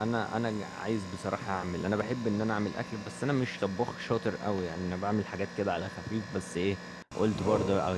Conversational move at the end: listening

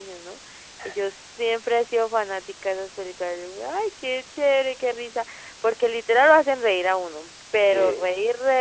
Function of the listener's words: listening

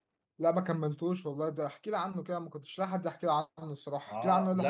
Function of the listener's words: taking over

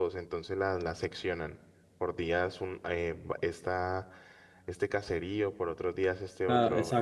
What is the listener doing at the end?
taking over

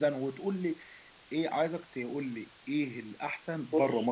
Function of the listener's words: listening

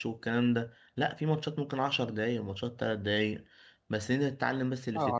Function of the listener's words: listening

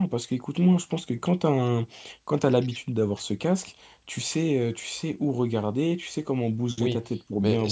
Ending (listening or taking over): taking over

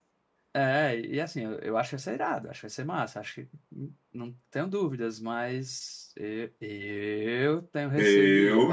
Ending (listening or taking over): listening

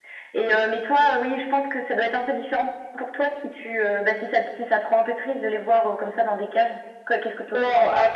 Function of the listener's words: taking over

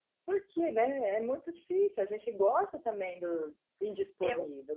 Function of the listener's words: taking over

